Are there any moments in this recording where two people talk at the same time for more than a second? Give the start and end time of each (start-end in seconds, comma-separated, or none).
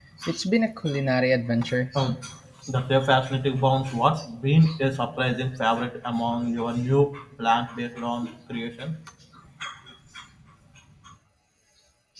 none